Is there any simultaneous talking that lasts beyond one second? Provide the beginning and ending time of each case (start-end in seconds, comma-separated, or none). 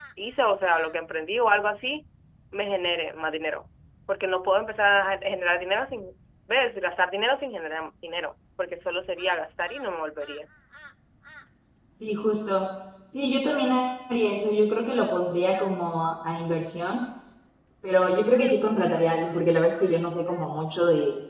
none